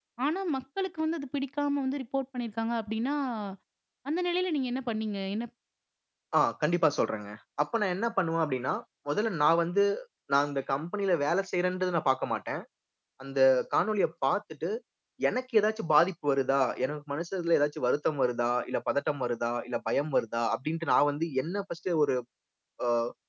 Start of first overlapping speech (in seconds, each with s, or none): none